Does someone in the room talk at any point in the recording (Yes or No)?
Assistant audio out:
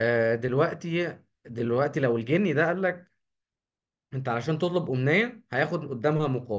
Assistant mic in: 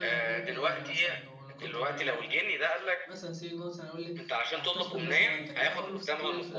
Yes